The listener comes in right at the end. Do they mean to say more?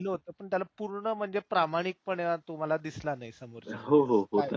Yes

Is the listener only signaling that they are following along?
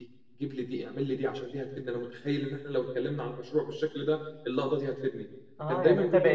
No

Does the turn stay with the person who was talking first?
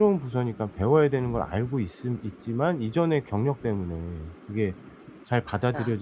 Yes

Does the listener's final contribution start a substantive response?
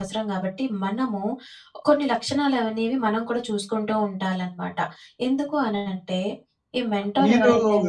Yes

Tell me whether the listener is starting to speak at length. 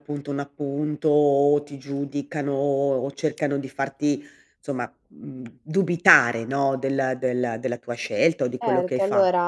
Yes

